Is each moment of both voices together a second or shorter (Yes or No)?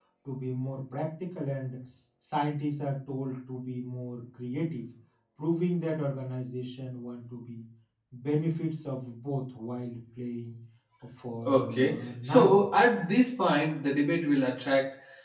No